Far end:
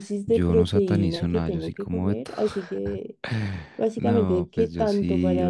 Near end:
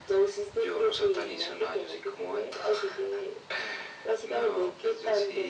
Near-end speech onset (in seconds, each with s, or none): none